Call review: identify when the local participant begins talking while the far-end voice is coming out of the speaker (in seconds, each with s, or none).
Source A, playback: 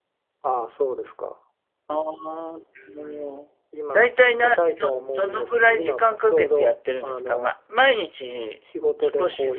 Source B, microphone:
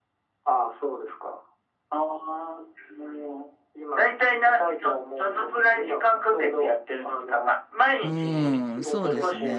8.0 s